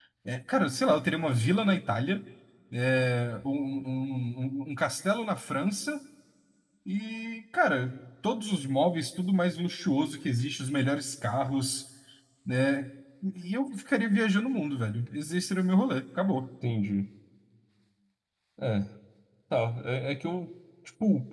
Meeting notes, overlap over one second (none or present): none